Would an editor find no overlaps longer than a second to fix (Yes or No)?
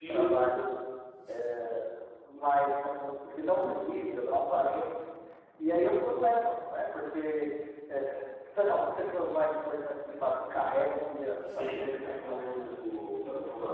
No